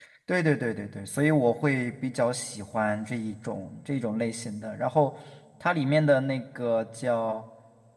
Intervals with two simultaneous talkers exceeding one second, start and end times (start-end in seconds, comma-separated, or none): none